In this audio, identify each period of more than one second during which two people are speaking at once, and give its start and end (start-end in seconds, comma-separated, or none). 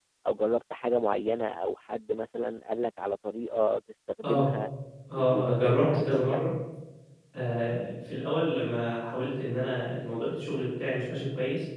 5.2-6.4